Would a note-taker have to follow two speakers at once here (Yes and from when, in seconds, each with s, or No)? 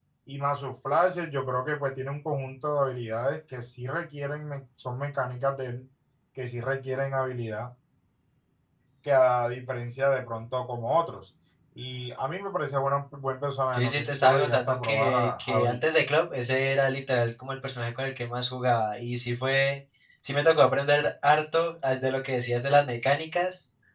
Yes, from 13.7 s